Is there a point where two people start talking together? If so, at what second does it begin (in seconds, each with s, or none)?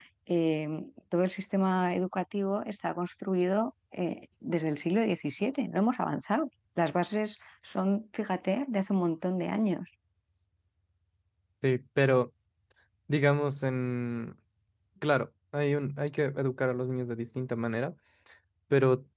none